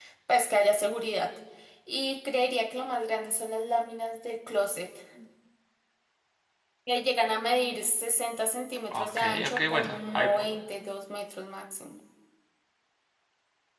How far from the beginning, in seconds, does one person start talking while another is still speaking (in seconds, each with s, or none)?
8.9 s